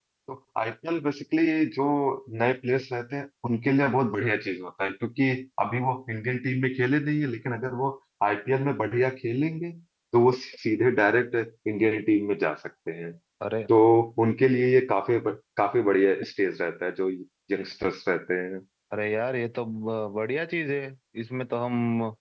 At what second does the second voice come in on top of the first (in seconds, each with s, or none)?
none